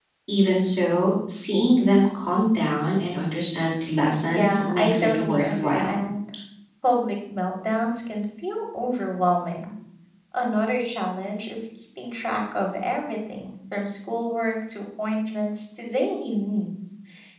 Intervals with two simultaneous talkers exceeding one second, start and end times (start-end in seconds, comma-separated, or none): 4.3-6.0